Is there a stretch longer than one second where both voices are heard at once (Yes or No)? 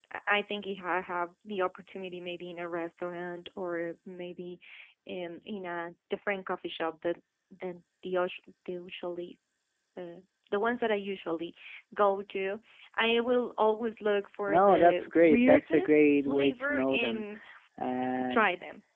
Yes